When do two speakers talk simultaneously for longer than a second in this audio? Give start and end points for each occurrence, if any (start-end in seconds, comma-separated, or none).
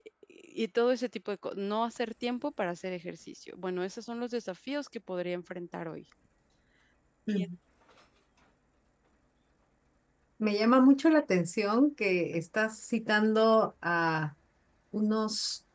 none